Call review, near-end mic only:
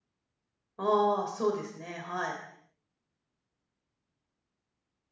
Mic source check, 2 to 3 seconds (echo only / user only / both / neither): user only